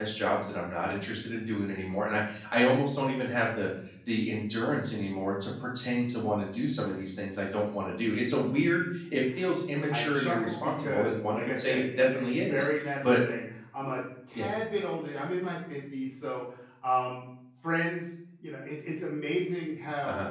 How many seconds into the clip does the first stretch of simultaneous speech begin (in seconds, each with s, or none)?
9.9 s